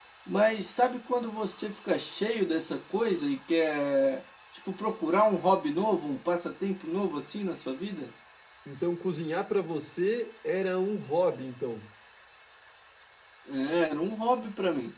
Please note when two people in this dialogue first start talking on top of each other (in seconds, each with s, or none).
none